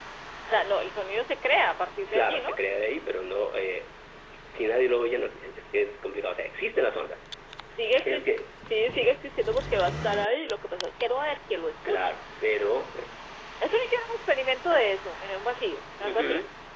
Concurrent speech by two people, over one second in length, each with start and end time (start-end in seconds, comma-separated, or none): none